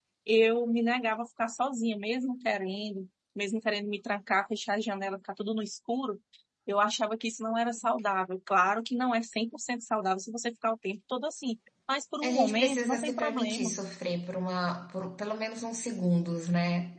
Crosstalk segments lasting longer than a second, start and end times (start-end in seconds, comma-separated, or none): 12.2-13.8